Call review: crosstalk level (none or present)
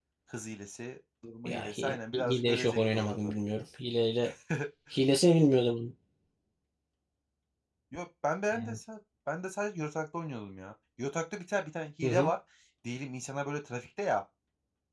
present